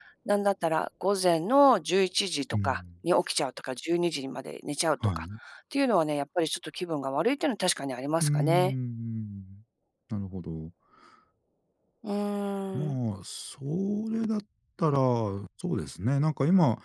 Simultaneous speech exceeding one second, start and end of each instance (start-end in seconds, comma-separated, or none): none